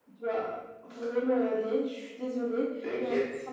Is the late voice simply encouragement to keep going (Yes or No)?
Yes